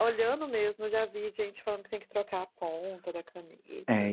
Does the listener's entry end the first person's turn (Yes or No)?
Yes